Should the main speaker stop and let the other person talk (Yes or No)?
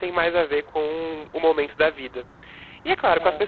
No